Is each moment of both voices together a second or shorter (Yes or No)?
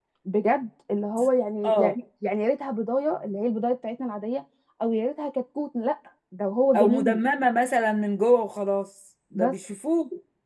Yes